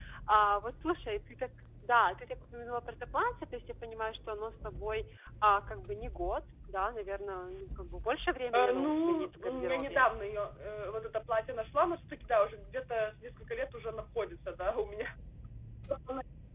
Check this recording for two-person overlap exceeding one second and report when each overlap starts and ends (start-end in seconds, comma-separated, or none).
8.5-10.0